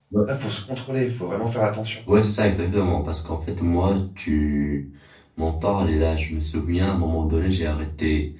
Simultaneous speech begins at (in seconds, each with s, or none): none